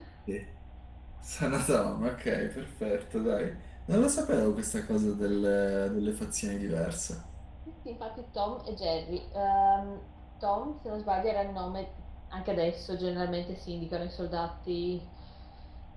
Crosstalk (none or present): none